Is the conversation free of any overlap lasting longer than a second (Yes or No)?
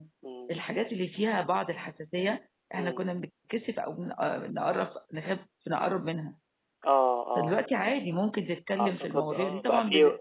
No